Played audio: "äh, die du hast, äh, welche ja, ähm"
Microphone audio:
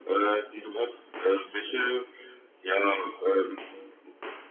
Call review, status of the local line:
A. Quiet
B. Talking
A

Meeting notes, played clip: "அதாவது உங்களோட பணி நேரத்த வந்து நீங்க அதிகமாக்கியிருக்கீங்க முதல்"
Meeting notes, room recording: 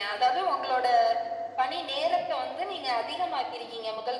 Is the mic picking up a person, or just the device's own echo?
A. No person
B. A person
A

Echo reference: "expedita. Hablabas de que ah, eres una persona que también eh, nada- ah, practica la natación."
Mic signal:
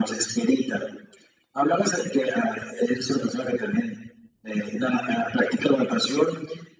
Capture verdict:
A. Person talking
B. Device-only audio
B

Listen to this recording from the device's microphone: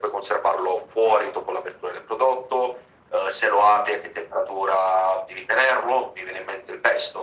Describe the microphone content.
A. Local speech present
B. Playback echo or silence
B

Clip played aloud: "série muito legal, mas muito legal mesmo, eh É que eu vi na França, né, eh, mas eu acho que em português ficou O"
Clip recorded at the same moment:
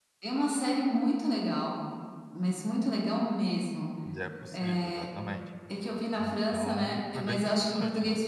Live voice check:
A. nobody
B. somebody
B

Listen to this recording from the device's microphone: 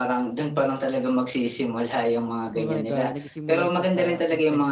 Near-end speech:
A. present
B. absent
A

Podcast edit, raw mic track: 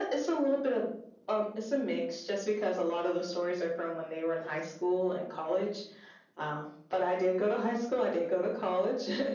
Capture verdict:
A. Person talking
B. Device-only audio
B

